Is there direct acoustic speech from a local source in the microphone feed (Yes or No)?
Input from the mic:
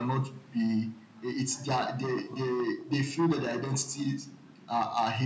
No